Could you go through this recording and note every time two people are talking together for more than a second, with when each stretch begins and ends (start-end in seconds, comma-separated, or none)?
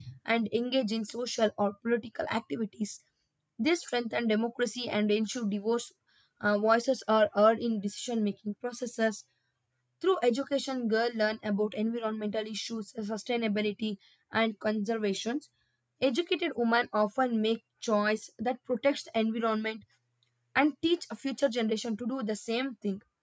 none